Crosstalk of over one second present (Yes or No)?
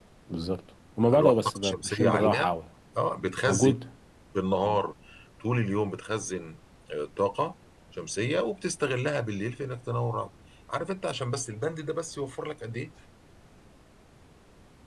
Yes